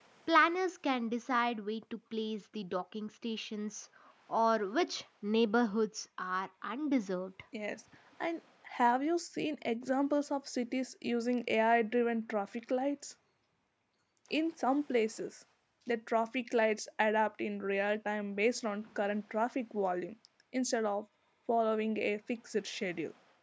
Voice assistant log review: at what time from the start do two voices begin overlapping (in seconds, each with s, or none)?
none